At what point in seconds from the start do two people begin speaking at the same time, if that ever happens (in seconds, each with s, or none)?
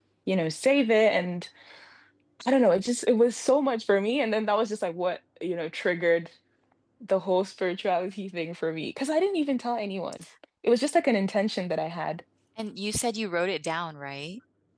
none